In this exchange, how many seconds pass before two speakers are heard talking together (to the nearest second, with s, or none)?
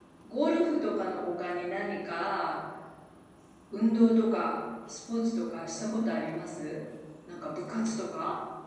none